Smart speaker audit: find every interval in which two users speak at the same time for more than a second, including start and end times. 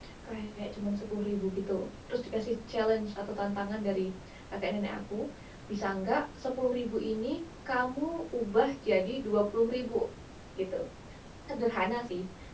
none

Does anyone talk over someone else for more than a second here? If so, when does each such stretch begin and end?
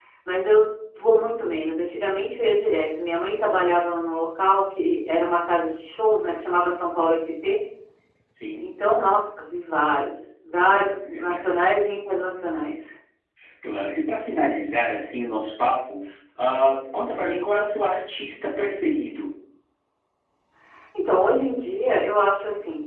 none

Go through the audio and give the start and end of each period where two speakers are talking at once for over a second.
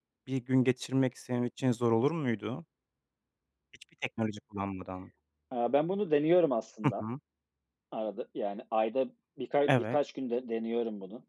none

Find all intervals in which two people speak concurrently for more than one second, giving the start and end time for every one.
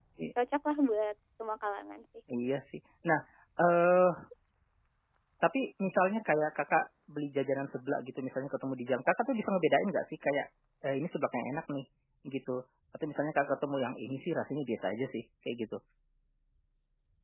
none

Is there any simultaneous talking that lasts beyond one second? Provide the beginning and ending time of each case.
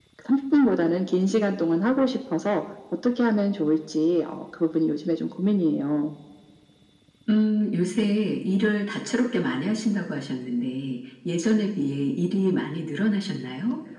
none

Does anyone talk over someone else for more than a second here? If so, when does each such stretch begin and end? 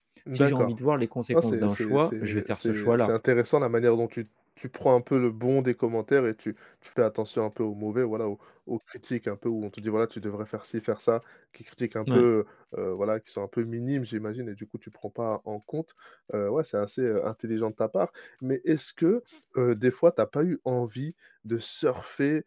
1.3-3.1

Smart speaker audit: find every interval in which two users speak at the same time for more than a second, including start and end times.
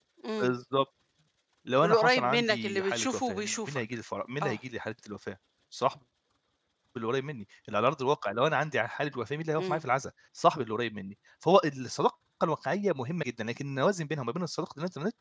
1.8-3.8

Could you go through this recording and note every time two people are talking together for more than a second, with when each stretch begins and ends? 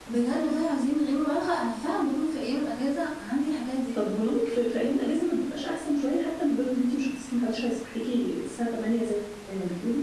none

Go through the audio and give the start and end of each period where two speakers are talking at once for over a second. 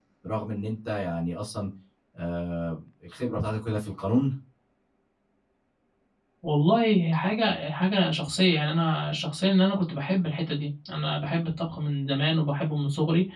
none

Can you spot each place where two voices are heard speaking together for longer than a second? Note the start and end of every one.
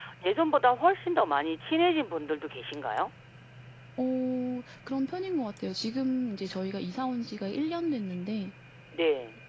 none

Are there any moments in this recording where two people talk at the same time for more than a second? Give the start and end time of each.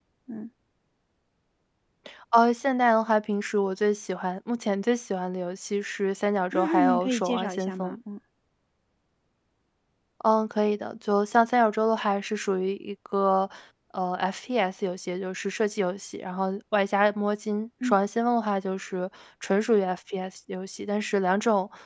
6.5-8.0

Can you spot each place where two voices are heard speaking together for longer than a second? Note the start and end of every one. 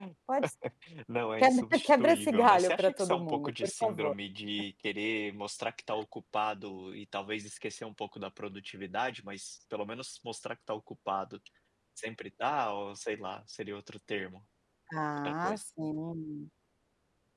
1.4-4.1

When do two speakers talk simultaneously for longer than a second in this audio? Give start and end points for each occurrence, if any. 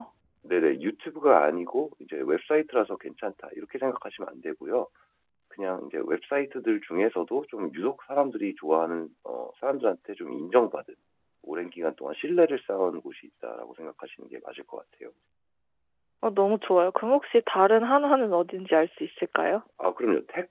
none

